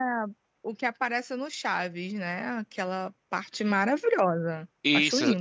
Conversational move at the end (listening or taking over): taking over